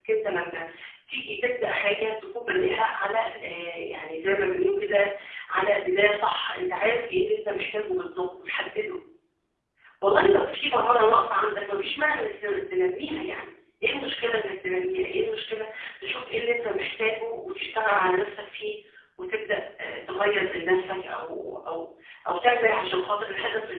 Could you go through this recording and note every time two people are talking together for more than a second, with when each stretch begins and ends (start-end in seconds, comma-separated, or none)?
none